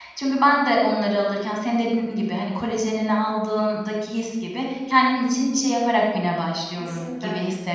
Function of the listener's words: taking over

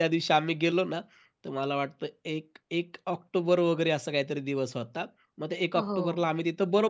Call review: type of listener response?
listening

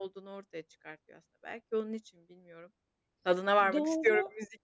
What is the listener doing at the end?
taking over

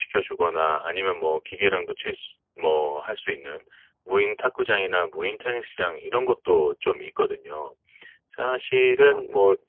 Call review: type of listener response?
listening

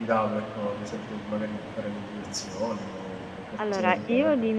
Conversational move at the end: taking over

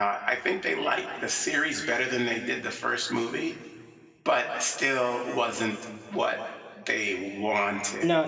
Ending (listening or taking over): taking over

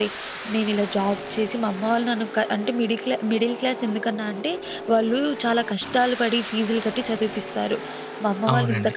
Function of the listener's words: taking over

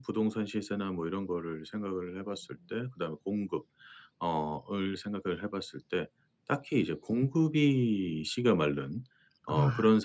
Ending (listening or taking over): listening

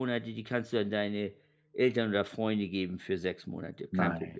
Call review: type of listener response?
taking over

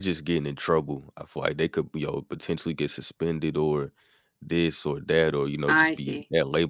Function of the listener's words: listening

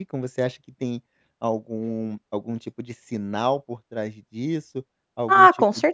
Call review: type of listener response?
taking over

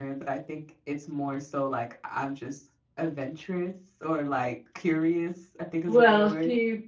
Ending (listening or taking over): taking over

